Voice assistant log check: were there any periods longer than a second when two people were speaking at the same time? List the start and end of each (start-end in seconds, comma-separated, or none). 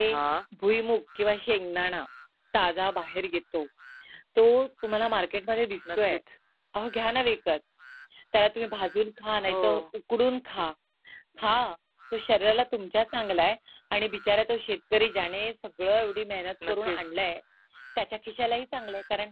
none